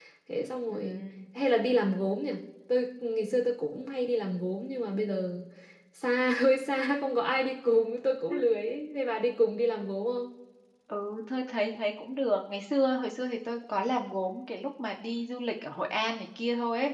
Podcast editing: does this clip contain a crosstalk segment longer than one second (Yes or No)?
No